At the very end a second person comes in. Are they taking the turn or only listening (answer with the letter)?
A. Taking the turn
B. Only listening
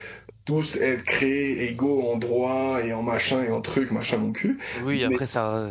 A